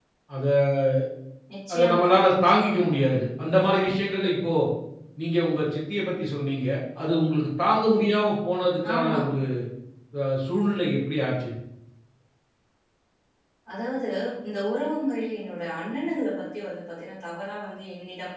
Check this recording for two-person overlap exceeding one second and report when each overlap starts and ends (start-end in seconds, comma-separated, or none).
none